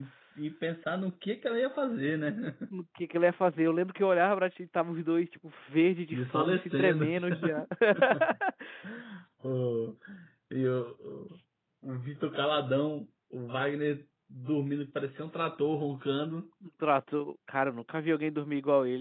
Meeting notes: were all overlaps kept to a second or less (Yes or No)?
No